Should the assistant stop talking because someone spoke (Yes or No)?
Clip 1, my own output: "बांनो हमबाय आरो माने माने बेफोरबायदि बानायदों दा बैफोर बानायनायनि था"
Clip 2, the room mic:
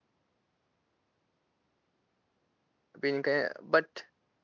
Yes